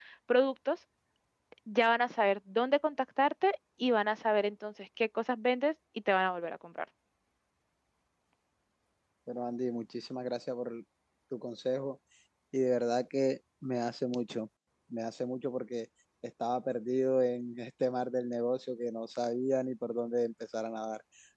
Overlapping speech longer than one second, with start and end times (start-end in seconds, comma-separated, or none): none